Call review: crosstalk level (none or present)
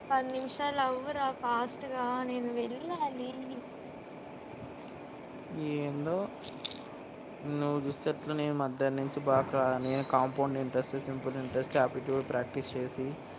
none